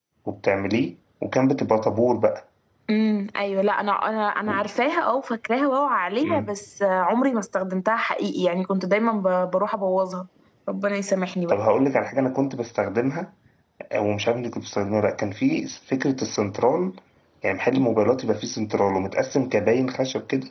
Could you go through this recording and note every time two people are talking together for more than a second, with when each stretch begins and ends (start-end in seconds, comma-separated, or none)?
none